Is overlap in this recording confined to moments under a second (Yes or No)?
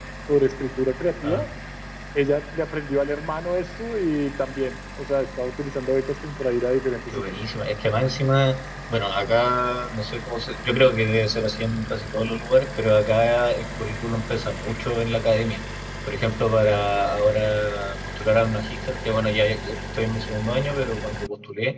Yes